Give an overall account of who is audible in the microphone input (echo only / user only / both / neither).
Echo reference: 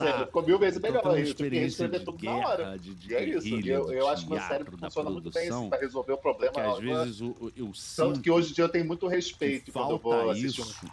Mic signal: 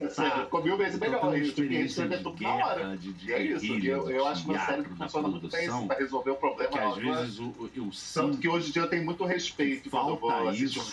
echo only